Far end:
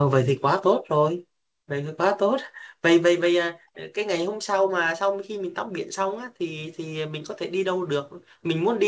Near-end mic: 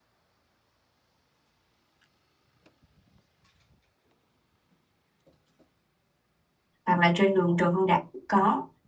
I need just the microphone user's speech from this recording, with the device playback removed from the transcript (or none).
hoặc là trên đường Trần Hưng Đạo cũng có